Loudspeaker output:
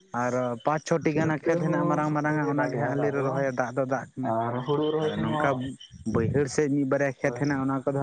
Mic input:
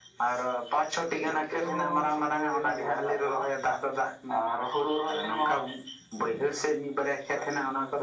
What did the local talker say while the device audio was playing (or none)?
none